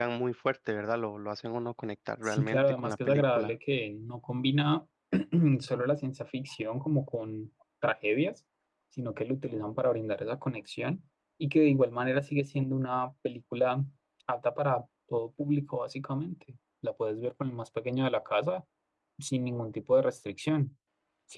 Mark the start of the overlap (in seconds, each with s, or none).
2.2 s